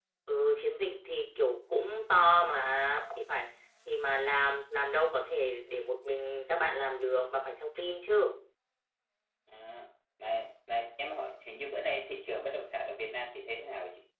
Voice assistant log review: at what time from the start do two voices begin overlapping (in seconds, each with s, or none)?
none